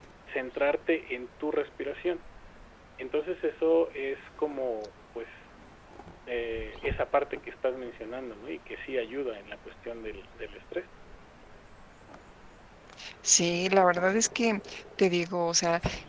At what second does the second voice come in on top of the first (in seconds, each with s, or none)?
none